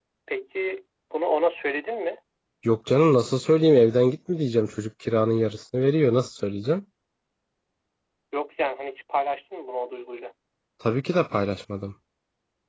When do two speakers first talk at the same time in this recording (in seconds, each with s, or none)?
none